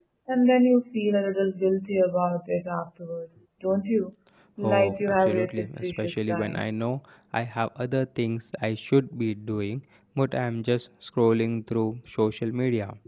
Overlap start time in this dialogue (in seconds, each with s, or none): 4.6 s